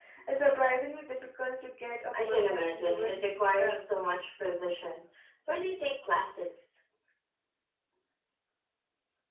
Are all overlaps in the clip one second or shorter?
No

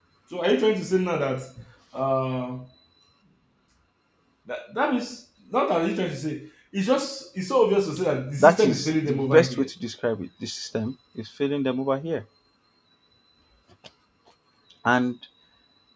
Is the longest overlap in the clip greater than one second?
Yes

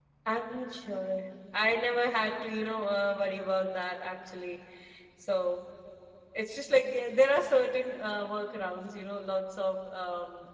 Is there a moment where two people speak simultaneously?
No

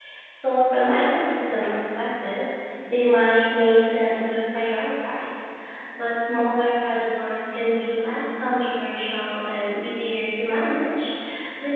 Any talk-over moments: No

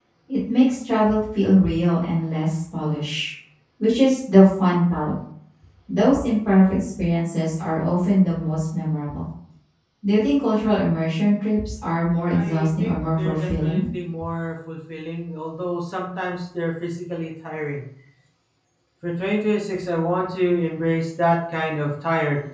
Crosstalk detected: Yes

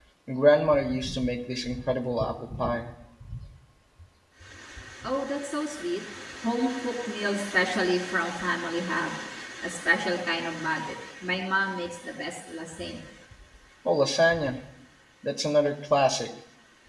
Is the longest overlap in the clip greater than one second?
No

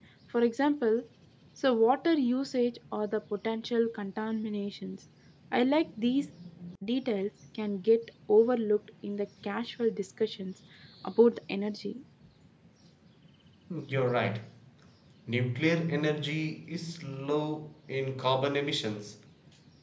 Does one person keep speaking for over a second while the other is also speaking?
No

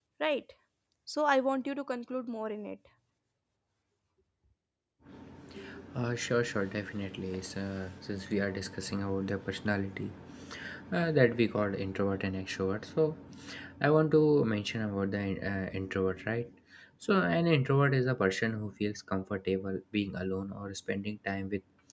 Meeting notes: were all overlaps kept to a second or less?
Yes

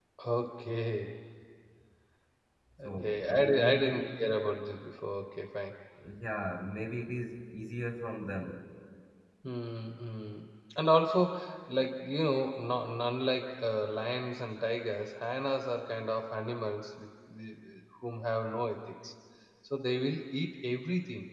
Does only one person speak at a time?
No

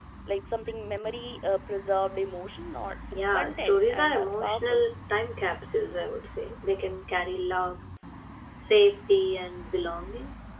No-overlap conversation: No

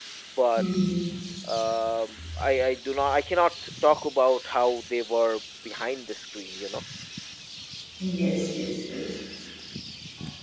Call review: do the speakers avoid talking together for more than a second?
Yes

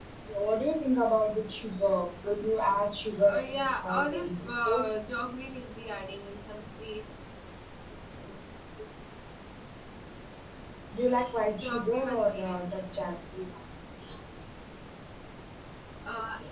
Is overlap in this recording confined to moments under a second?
No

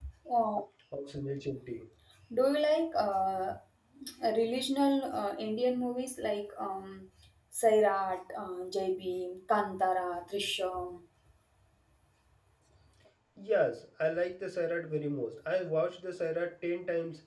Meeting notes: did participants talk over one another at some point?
No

